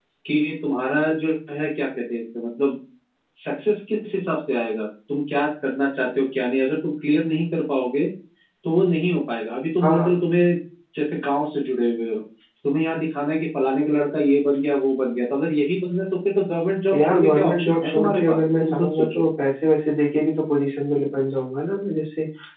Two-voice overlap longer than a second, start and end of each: 16.9-19.2

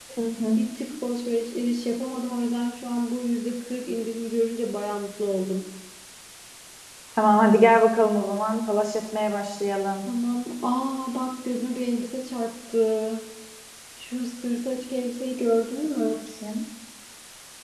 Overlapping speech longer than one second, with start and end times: none

